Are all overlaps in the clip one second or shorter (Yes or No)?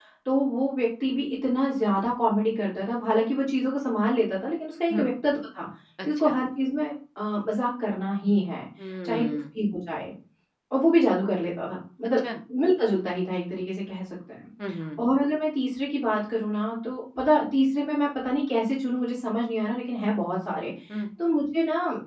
Yes